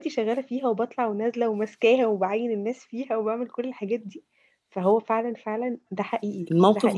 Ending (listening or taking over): taking over